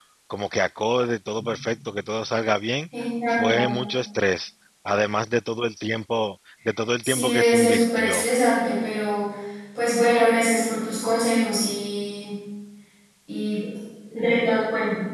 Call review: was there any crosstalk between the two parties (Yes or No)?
Yes